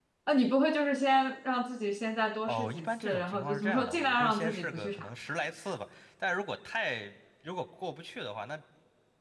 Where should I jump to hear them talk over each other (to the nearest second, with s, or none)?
2 s